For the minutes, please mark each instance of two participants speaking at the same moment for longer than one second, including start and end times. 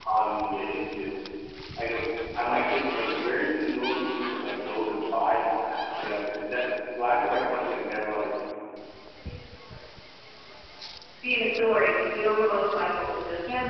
none

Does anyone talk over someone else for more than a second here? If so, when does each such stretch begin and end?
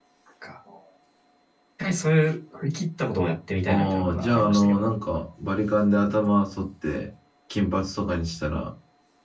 3.7-4.9

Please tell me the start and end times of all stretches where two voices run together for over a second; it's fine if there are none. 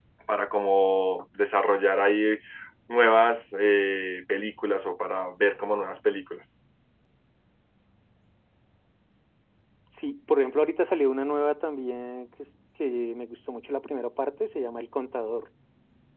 none

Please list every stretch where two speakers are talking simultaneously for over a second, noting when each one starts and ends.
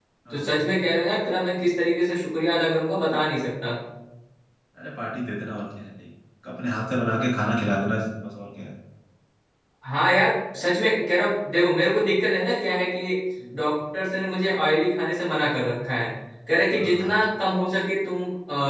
none

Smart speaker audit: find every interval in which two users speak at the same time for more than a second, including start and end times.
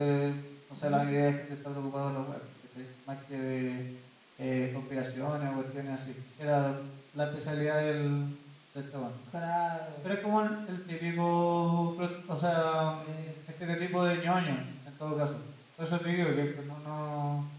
none

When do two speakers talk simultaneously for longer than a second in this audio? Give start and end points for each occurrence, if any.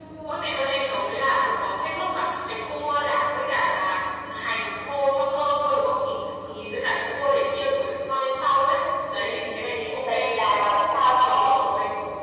10.1-11.7

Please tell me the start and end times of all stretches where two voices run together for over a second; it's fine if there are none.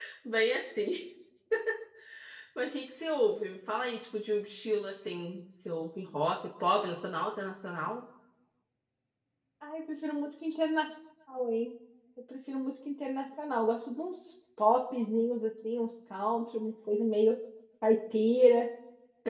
none

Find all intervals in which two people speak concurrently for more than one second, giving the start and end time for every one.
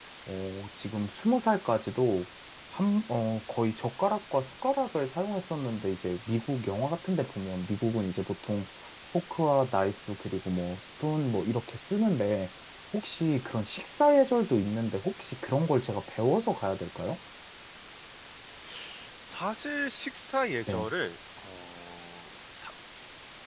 none

